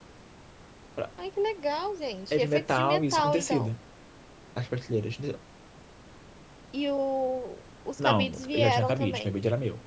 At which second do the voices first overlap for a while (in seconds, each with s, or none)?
2.3 s